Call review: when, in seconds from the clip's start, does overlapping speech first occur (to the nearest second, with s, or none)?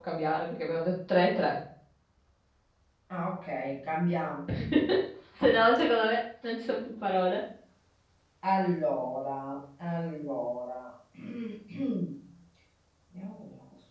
none